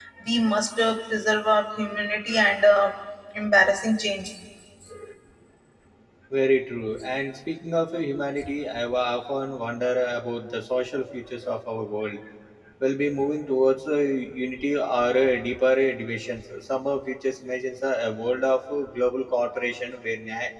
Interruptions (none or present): none